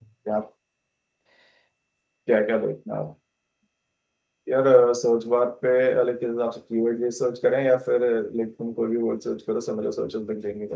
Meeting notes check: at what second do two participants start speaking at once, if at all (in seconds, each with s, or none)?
none